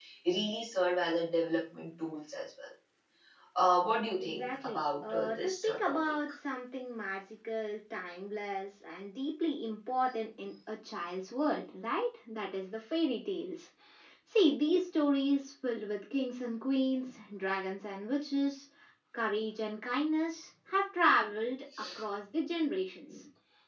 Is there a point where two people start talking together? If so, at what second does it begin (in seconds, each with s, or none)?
4.2 s